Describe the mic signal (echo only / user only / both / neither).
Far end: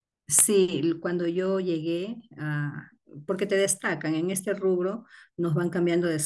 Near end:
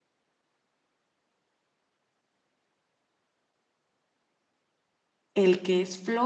user only